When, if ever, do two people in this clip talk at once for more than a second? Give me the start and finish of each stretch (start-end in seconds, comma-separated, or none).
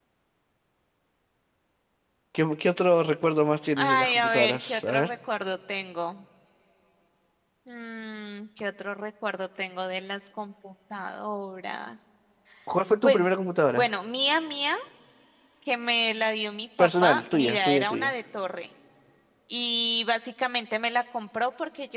3.8-5.1, 16.8-18.1